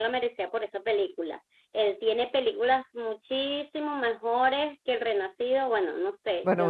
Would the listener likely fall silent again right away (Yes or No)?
No